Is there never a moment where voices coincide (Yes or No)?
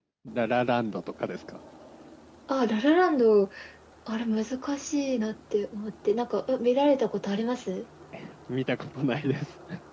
Yes